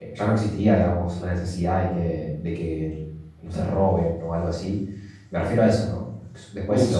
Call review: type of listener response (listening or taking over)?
taking over